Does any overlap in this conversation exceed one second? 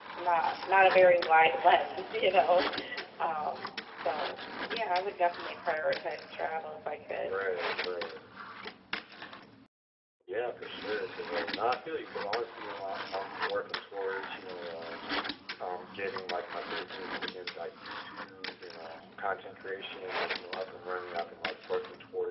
No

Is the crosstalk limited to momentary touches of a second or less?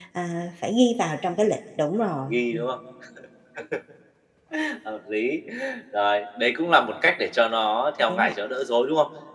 Yes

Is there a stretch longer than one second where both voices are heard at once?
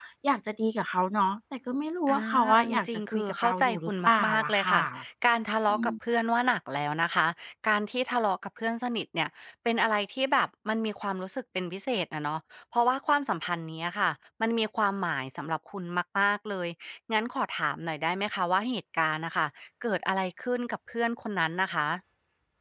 Yes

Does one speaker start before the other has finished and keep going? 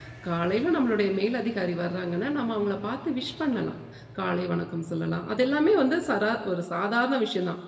No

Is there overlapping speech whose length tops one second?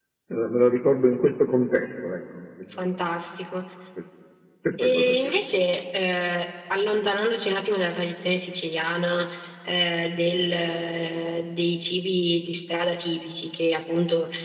No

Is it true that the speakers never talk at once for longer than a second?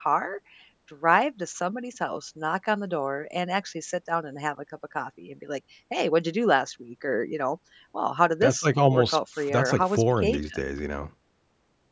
No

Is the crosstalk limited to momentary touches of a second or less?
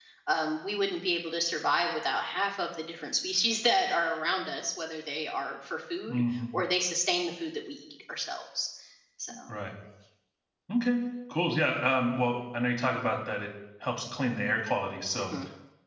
Yes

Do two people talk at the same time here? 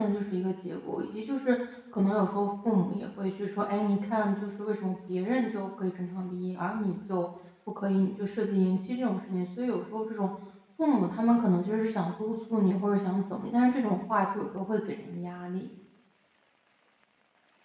No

